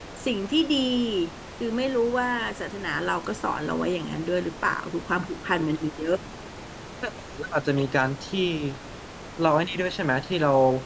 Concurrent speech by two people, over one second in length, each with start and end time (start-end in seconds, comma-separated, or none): none